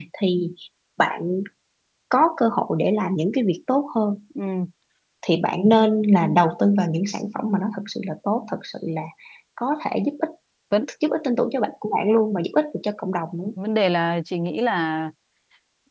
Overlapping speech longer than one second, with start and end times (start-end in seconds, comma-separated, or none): none